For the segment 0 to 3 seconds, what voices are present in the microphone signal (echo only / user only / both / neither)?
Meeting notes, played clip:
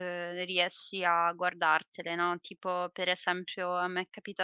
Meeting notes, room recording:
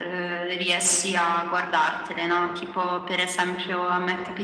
echo only